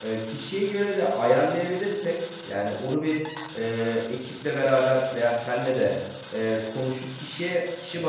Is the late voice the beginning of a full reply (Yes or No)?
No